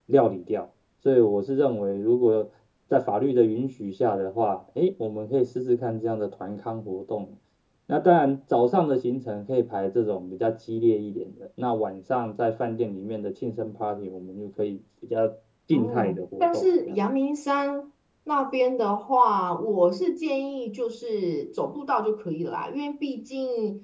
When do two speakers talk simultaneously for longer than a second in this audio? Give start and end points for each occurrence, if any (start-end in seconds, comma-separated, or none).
15.7-17.0